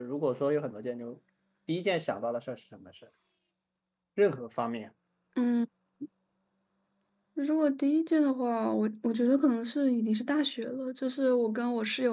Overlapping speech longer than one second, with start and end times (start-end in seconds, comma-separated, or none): none